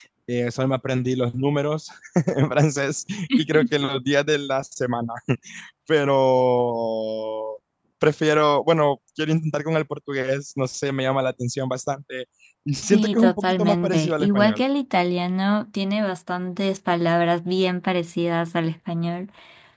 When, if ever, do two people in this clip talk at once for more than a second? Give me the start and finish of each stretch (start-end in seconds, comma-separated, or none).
12.9-14.6